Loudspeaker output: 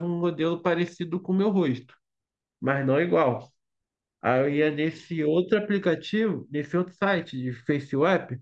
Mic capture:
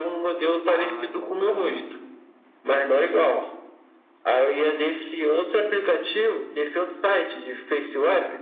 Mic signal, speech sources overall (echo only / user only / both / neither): both